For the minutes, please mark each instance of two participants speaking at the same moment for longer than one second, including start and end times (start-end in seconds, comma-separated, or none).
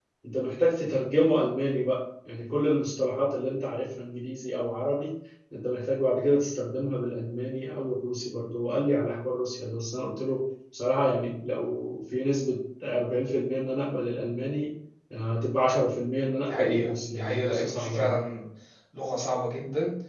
16.4-18.0